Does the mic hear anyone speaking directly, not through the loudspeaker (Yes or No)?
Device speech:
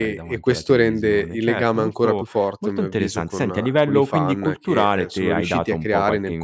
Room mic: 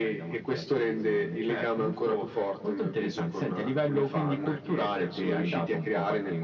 No